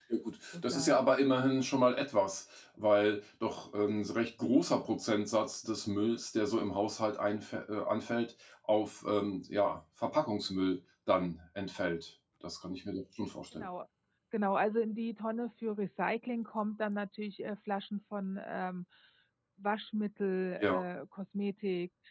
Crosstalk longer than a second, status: none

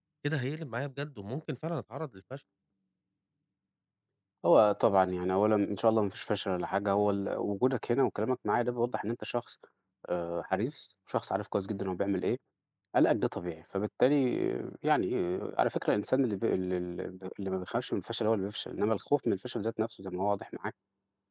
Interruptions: none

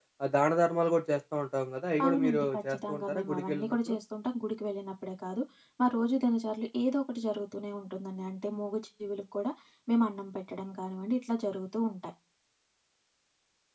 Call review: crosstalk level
present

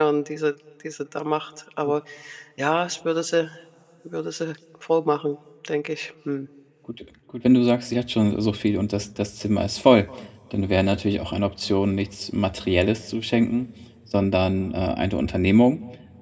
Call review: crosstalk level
none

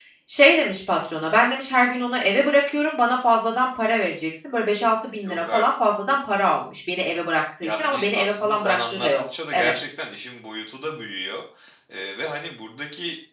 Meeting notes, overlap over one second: present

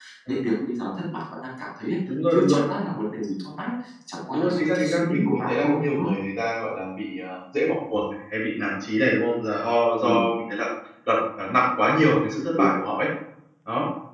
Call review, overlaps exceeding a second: present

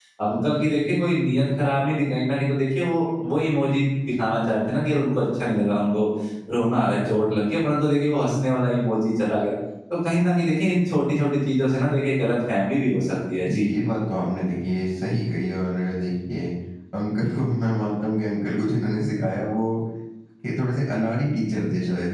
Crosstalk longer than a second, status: none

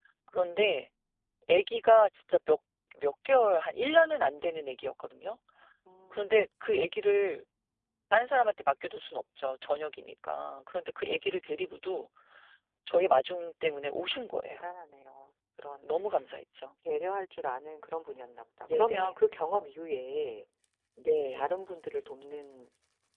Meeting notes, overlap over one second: none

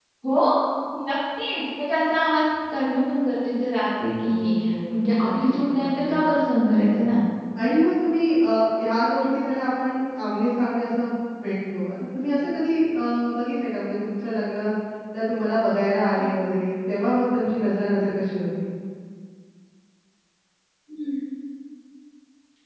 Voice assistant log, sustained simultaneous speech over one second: present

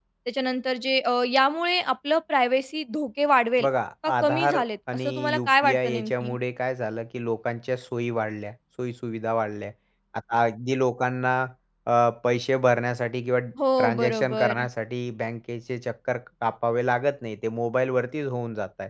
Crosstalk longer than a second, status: present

